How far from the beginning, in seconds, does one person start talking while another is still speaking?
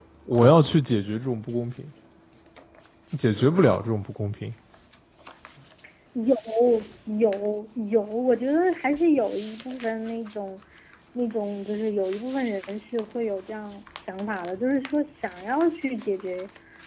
none

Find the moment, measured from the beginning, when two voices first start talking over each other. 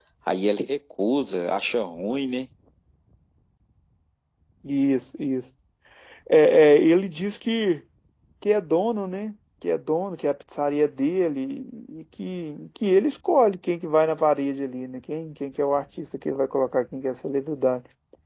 none

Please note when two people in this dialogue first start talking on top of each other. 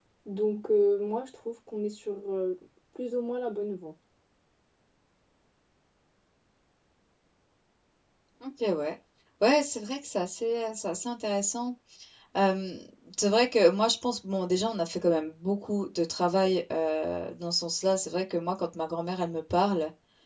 none

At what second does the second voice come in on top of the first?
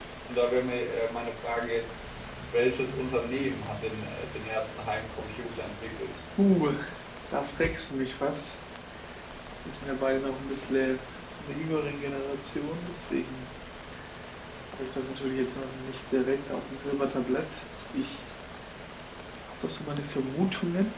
none

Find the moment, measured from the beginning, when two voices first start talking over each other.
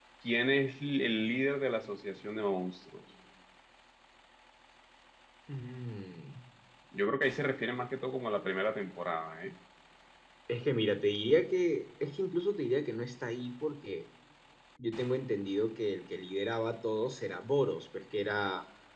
none

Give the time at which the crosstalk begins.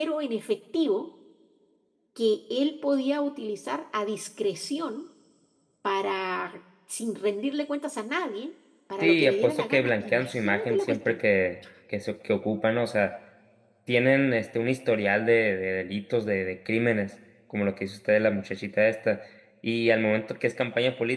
9.0 s

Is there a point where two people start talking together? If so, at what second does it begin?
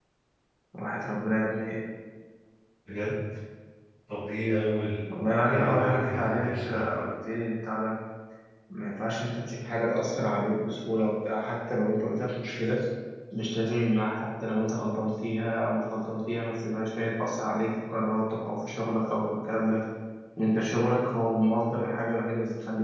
5.4 s

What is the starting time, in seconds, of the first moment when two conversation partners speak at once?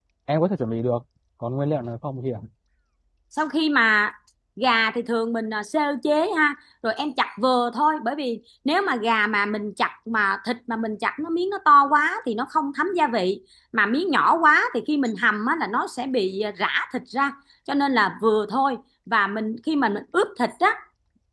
none

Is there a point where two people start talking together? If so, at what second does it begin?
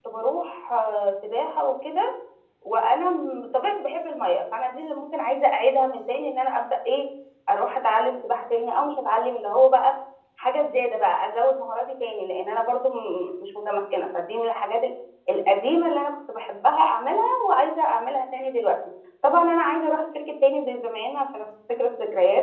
none

